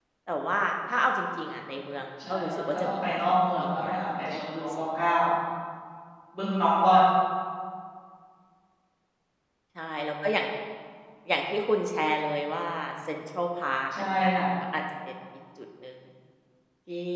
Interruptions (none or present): present